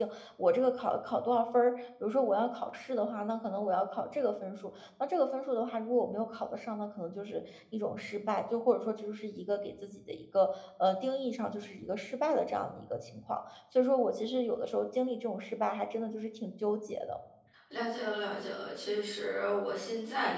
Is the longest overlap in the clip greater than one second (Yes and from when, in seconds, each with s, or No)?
No